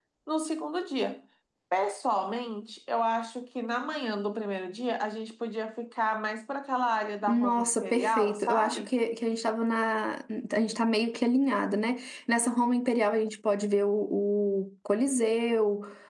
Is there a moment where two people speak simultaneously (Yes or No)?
Yes